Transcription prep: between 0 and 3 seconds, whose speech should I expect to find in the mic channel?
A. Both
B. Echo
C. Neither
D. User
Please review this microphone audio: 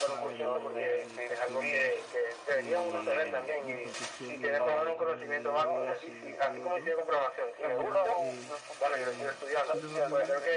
A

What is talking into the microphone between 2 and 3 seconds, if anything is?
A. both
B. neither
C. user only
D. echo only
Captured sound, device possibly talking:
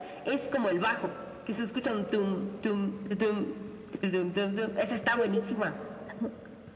D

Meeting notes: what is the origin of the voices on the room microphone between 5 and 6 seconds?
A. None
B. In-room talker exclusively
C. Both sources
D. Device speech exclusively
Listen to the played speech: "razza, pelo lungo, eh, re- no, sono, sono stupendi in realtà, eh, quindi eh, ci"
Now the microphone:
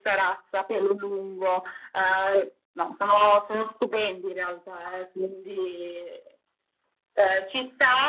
D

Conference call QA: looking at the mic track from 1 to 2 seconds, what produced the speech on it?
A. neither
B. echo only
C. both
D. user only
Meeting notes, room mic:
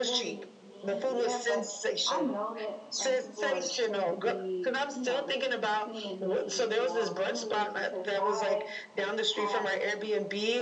C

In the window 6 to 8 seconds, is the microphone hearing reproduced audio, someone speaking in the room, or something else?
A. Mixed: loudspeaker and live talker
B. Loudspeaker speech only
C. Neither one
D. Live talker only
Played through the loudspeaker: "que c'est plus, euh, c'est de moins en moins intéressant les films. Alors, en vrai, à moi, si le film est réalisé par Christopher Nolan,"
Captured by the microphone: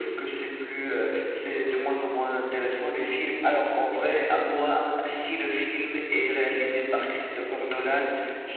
B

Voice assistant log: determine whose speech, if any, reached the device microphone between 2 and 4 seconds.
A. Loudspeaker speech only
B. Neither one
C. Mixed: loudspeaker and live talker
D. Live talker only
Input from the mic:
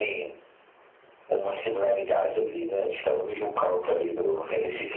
A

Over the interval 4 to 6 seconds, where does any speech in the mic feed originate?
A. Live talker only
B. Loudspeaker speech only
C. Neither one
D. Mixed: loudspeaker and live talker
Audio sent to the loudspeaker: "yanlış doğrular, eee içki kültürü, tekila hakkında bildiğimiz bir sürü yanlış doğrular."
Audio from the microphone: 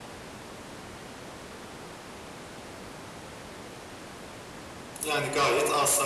A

